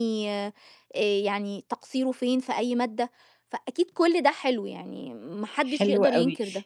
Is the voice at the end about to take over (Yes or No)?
Yes